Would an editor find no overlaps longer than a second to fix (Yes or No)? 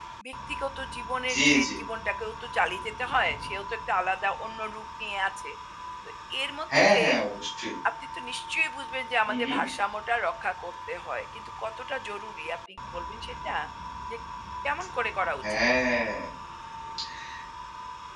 Yes